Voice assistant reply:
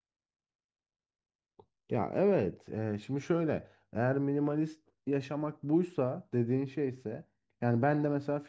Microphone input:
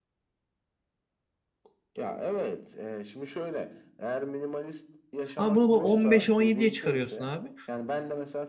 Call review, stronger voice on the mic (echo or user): user